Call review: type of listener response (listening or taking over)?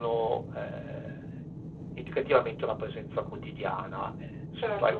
taking over